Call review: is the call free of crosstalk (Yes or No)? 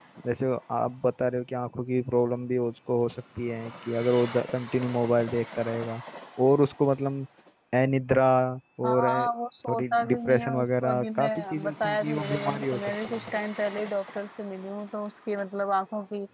No